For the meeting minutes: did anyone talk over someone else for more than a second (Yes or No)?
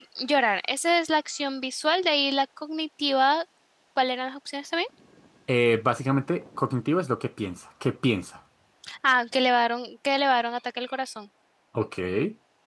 No